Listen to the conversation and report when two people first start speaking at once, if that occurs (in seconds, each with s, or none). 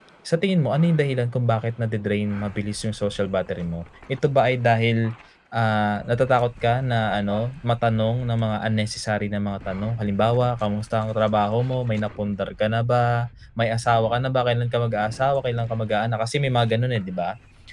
none